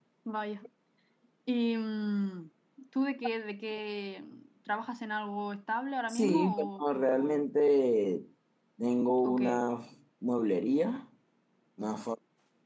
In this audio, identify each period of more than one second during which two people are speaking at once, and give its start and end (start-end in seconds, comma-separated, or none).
6.1-7.4